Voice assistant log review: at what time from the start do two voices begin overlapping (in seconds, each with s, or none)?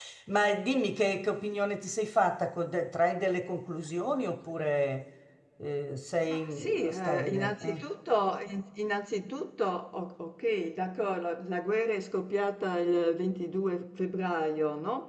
6.3 s